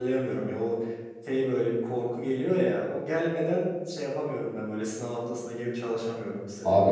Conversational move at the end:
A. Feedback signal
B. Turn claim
B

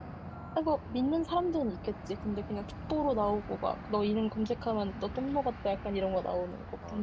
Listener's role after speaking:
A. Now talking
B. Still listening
A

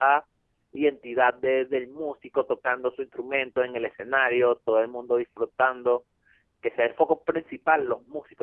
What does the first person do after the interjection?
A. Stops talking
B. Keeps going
B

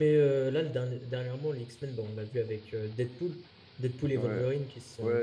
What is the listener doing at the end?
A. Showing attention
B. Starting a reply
B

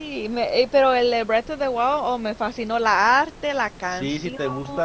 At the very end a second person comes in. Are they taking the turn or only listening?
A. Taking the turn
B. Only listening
A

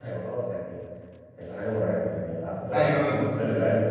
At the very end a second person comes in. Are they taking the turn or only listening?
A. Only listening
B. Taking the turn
A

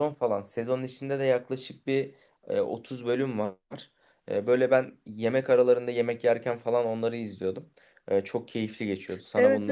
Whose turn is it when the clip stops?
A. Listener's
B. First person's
A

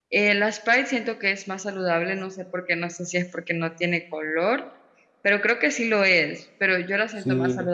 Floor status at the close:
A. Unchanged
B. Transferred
A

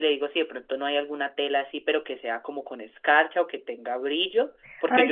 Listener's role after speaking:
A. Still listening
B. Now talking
B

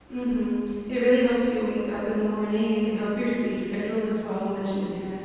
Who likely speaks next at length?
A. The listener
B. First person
B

